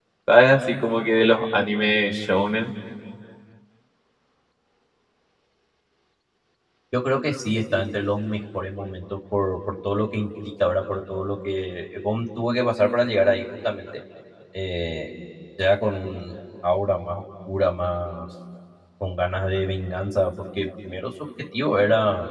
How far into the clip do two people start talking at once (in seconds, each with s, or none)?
none